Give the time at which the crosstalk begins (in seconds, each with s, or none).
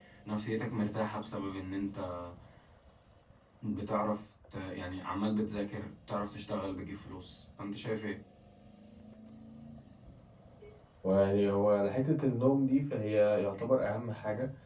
none